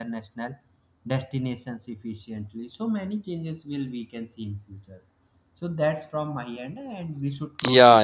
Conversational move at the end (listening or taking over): taking over